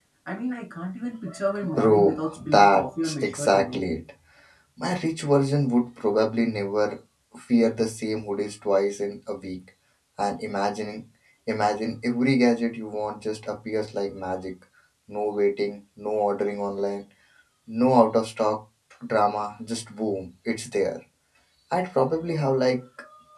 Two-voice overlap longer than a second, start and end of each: 1.7-3.8

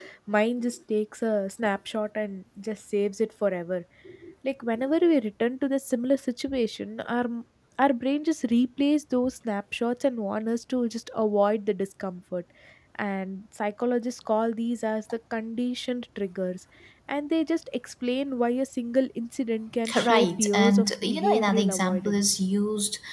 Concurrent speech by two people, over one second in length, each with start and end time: 19.9-22.2

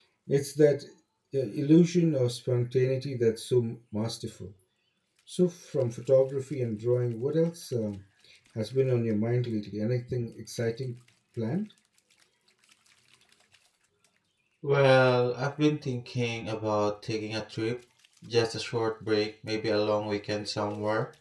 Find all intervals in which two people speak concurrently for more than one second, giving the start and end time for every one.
none

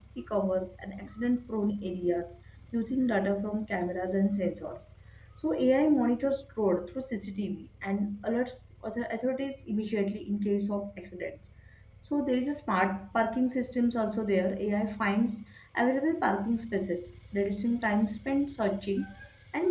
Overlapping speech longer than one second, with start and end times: none

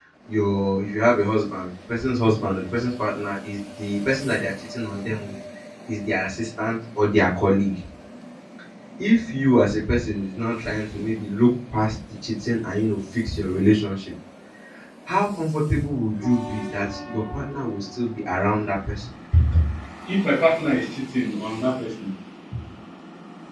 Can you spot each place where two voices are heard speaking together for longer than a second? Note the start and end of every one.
none

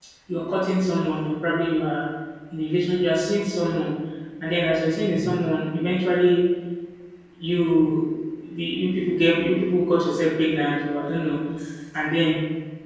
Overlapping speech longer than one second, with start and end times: none

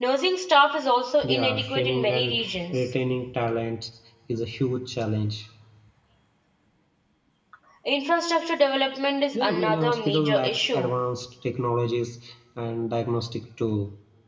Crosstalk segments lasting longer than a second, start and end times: 1.2-2.9, 9.3-10.9

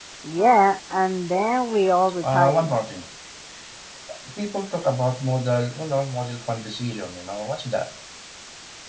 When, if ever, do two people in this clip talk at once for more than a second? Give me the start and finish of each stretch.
none

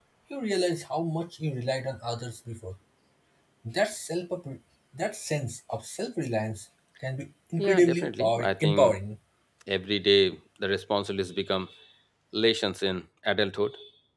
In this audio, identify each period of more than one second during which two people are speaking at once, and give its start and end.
7.6-8.9

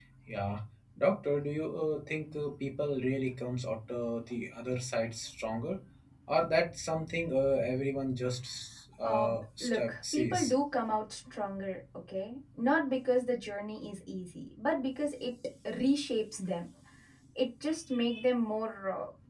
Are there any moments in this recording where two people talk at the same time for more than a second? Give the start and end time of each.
9.0-10.5

